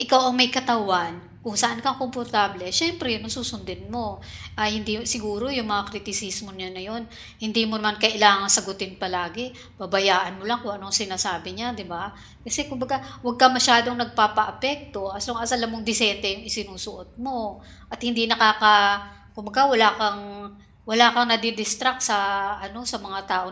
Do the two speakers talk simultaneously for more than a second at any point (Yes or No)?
No